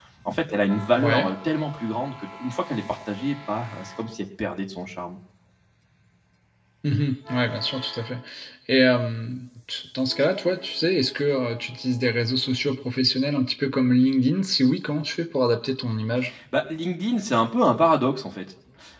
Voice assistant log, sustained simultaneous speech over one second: none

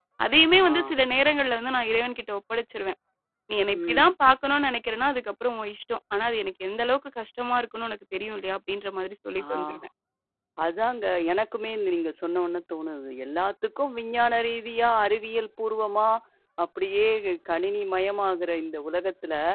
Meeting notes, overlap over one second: none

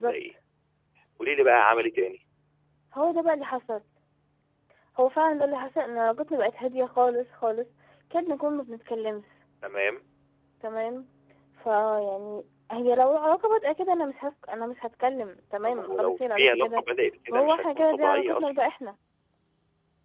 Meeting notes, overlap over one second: present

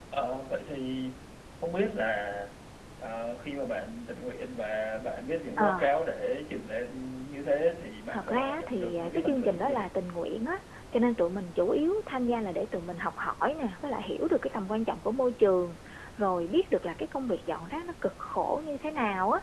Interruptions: present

